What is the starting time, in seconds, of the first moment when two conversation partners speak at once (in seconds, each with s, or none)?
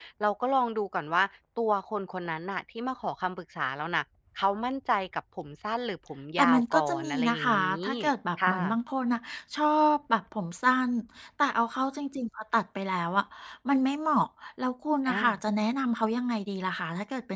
6.4 s